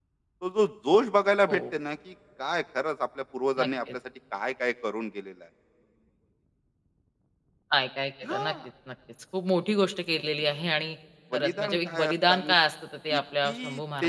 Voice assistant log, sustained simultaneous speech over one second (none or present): present